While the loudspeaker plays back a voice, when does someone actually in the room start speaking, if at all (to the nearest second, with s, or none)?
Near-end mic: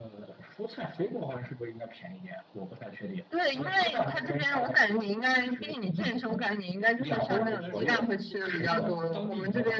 7 s